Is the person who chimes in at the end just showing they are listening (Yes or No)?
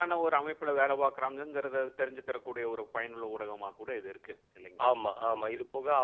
No